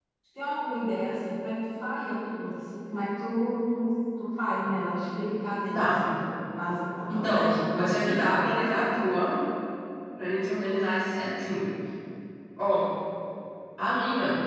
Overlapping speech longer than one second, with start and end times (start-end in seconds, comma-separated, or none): 7.1-8.5